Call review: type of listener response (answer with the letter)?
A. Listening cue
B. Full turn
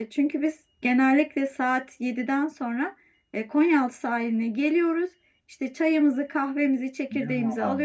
A